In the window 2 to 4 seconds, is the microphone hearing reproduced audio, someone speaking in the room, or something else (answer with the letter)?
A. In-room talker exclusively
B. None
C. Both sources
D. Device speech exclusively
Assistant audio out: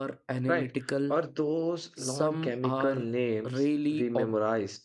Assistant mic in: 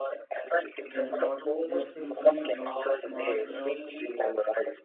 C